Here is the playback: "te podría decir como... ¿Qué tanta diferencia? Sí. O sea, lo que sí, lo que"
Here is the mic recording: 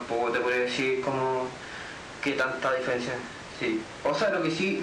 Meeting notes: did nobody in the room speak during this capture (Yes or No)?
Yes